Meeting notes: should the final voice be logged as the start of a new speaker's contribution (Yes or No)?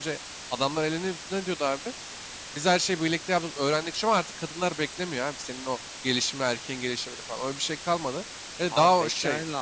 Yes